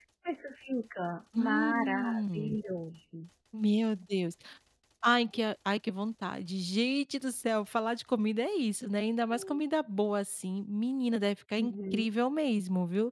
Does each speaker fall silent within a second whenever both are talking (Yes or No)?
No